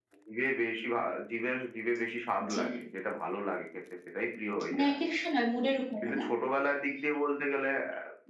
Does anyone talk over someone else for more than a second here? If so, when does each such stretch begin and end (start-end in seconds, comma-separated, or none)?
none